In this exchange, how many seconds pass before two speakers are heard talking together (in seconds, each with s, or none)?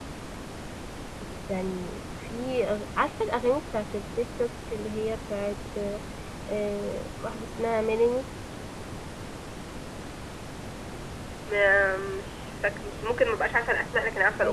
none